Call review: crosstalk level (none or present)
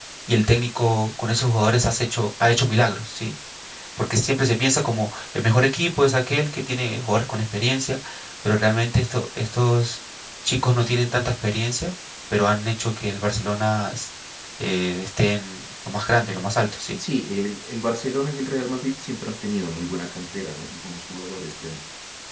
none